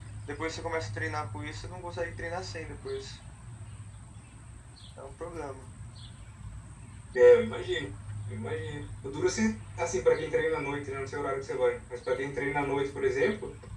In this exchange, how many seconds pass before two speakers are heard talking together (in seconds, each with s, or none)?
none